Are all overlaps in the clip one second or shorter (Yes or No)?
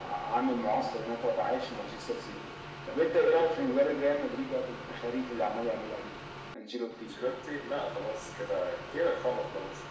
Yes